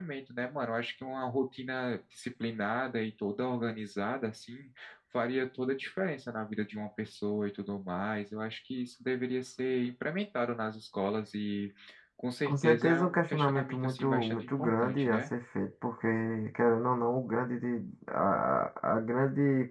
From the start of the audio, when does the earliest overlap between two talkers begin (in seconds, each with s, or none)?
12.4 s